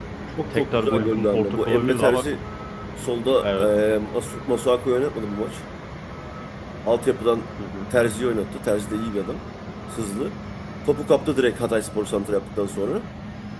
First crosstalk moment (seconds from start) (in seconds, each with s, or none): 0.5 s